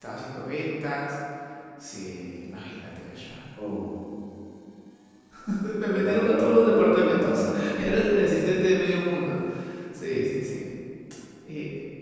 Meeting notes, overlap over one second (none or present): present